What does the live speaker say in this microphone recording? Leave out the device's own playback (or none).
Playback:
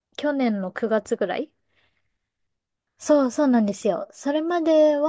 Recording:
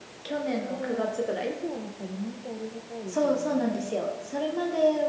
そう、やっぱ女子はやっぱリモートありがたいですよね。